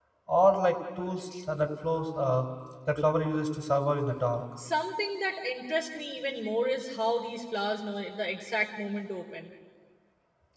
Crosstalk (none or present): none